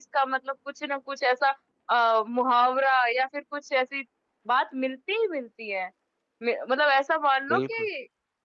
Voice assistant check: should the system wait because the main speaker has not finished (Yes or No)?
Yes